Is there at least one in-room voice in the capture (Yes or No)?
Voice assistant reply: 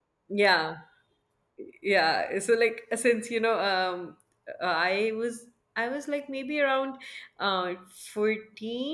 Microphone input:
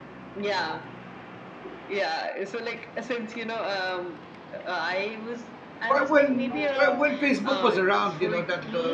Yes